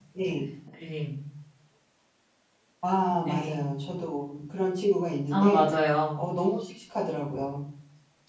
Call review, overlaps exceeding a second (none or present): none